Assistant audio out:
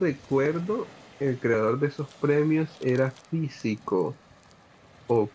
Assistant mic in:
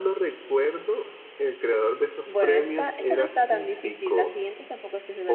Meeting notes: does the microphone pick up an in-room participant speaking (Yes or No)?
Yes